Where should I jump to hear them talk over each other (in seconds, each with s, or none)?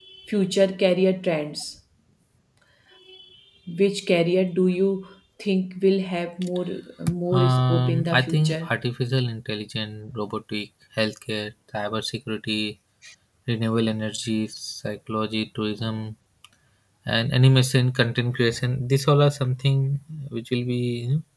7.3 s